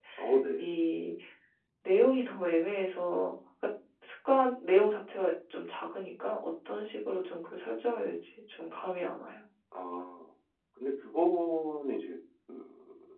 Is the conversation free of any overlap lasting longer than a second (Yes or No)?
Yes